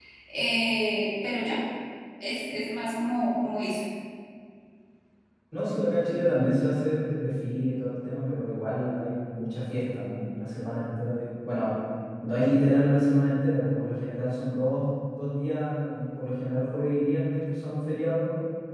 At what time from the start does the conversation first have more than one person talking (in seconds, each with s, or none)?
none